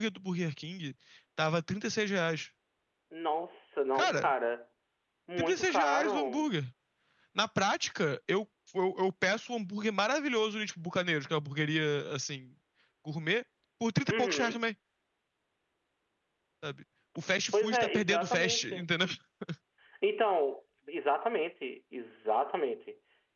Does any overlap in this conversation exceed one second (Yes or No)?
Yes